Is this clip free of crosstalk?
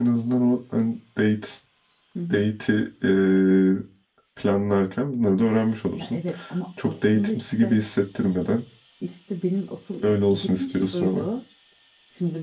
No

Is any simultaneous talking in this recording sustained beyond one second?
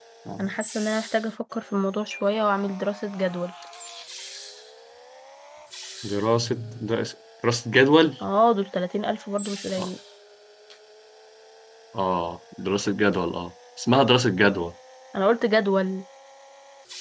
No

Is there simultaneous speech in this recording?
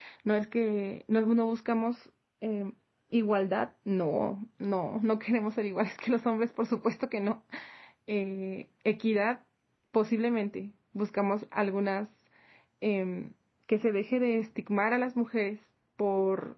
No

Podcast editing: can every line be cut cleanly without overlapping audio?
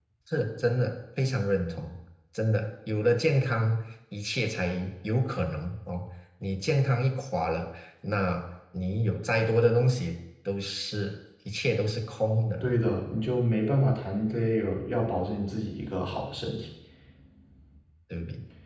Yes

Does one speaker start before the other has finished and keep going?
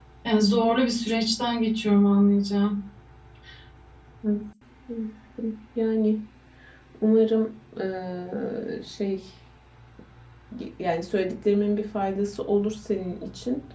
No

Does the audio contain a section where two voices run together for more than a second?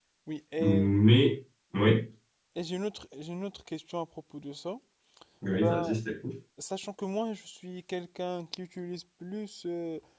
No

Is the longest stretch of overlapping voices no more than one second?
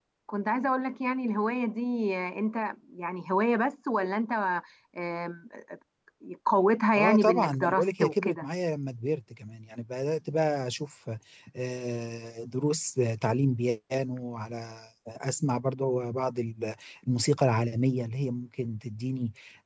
No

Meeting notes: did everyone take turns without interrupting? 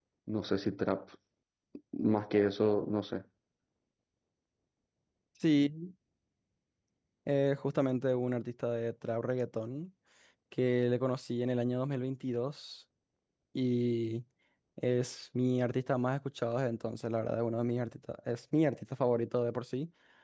Yes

